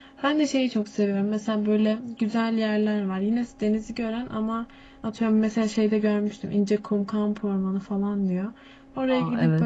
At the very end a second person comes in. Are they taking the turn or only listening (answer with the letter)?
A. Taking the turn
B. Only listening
B